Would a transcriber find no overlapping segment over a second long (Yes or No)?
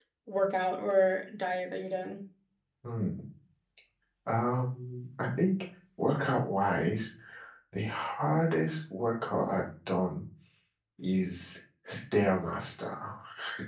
Yes